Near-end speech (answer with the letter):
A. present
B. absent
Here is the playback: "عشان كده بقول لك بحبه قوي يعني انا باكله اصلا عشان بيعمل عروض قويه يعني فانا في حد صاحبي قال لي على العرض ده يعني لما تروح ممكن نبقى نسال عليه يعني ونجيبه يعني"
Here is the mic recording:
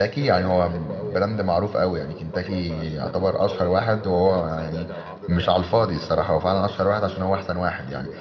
A